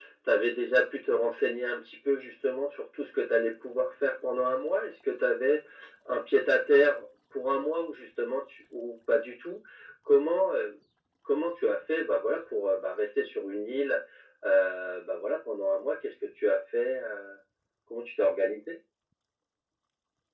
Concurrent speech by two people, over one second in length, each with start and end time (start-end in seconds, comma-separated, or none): none